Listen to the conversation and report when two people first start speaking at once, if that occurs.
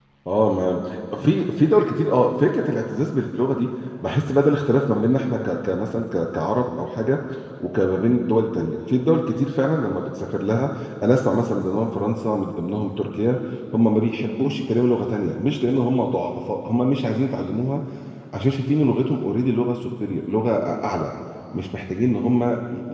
none

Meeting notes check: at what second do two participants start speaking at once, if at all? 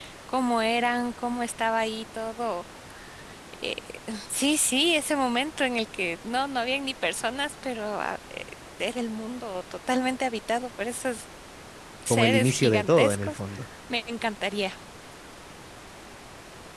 12.1 s

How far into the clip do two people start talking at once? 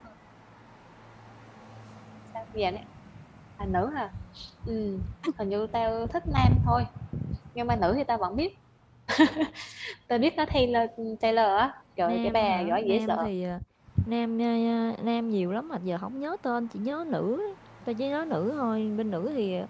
12.1 s

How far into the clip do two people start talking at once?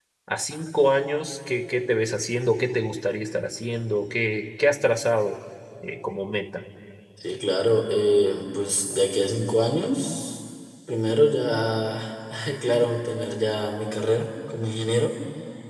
none

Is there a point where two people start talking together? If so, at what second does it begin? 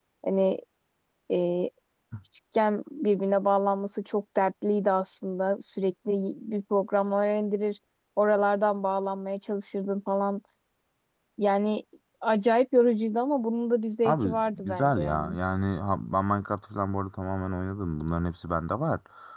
14.1 s

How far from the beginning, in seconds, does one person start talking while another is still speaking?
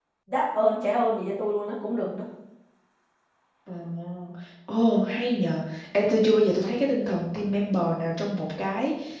none

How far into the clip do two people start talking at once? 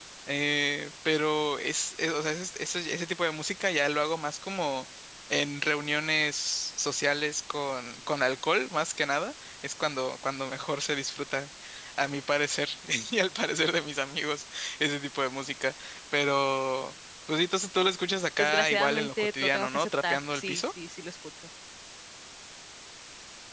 18.4 s

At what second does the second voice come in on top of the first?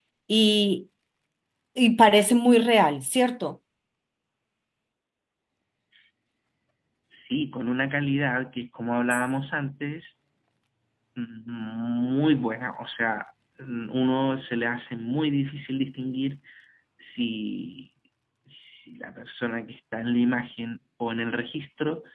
none

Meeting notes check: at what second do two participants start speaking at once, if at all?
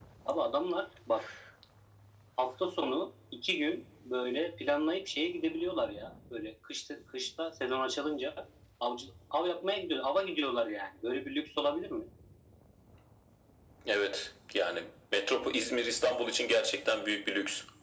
none

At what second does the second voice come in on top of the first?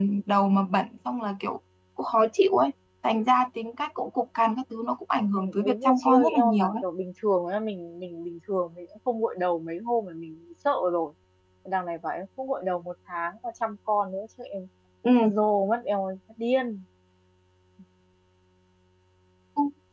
5.3 s

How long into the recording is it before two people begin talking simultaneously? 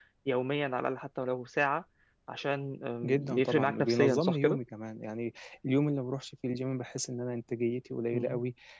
3.0 s

